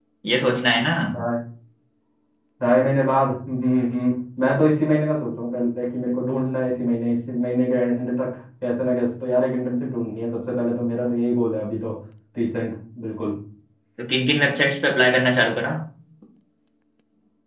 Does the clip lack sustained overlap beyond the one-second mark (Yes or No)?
Yes